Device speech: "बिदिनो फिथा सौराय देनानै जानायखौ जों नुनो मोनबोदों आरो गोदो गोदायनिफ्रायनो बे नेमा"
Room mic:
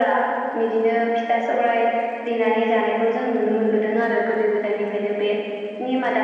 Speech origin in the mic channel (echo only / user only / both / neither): echo only